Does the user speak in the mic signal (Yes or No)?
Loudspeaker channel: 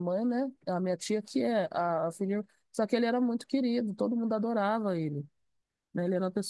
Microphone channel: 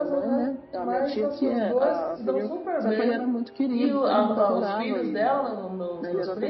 Yes